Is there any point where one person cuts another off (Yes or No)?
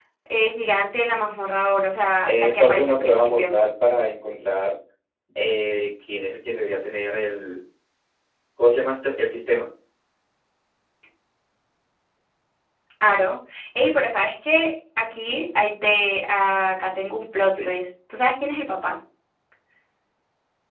Yes